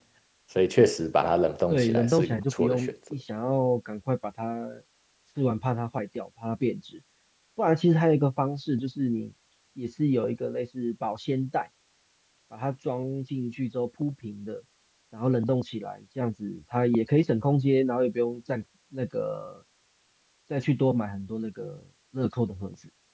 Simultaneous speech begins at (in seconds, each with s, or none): 1.7 s